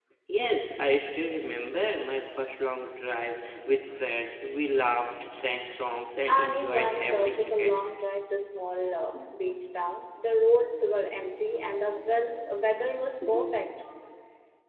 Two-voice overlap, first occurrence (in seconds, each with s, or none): 6.3 s